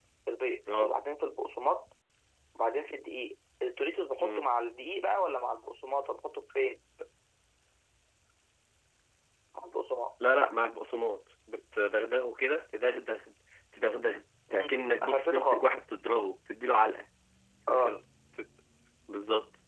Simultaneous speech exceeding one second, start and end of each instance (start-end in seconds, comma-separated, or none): 14.5-15.8